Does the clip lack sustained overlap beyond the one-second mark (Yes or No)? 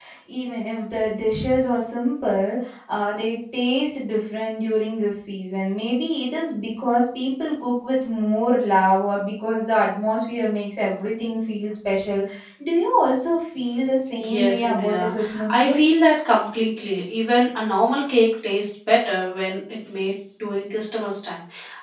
No